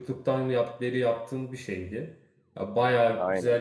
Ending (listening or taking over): listening